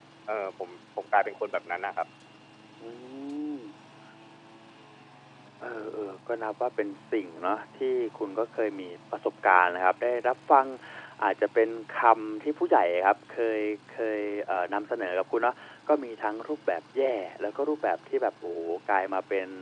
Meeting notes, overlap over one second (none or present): none